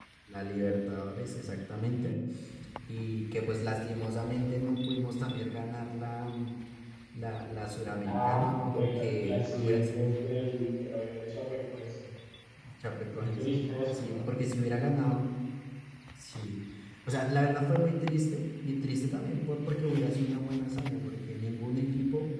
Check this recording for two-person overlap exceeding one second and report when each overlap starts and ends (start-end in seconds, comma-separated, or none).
8.0-10.0